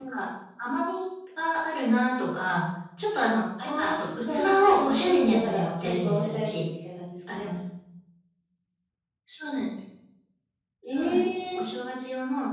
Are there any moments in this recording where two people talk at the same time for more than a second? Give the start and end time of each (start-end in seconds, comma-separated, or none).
3.8-6.6